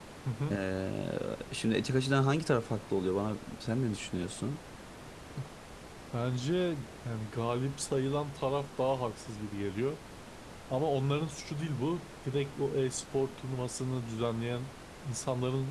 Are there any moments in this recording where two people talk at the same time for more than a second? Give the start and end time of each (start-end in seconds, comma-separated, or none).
none